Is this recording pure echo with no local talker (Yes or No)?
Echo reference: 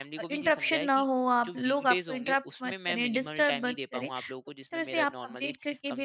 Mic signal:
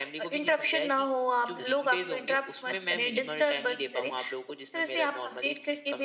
Yes